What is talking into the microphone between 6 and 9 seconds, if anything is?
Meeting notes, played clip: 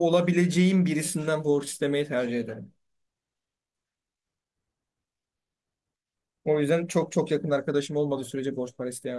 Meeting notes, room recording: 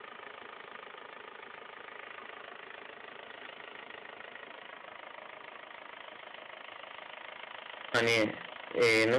user only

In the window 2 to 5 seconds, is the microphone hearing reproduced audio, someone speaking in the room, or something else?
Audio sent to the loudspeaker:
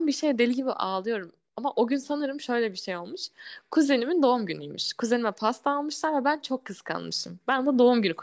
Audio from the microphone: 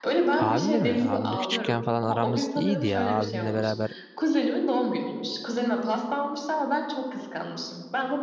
both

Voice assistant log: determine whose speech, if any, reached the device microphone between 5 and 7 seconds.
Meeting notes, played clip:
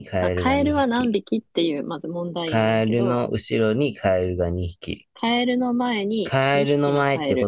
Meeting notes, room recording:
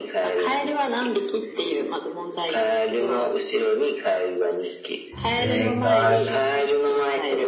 both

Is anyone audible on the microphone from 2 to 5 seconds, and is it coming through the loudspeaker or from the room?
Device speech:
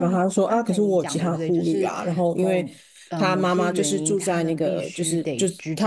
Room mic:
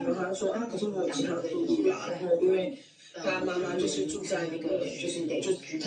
both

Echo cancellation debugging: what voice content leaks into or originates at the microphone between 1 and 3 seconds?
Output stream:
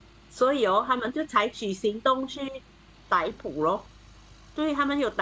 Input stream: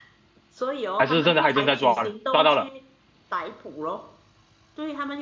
both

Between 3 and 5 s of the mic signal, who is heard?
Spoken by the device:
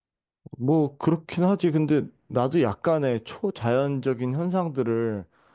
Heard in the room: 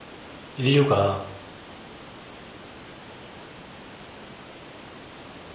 neither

